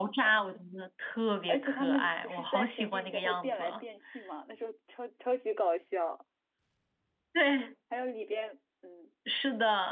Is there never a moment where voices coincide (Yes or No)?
No